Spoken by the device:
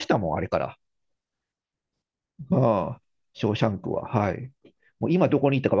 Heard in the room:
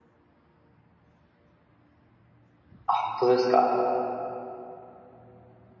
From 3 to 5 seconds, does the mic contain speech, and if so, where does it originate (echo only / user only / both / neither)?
user only